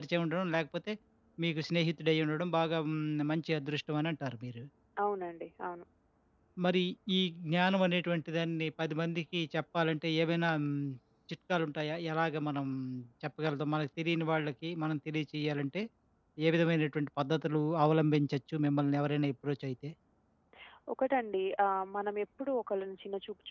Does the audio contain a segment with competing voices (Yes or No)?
No